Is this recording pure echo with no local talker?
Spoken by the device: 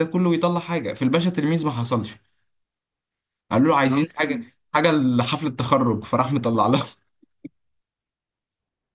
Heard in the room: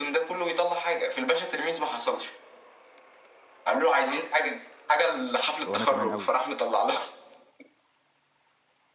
No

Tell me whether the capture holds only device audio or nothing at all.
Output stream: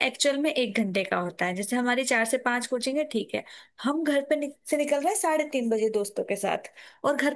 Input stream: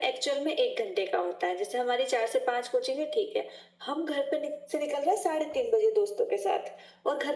Yes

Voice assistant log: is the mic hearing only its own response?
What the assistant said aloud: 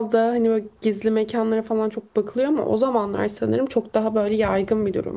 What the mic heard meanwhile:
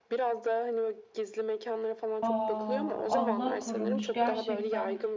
No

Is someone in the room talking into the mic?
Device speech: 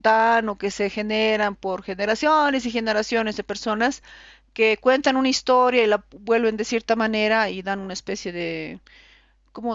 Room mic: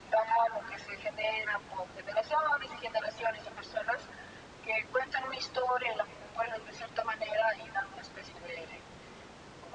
No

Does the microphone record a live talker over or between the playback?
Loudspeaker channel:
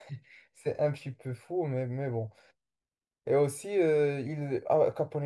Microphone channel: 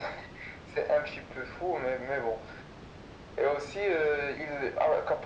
No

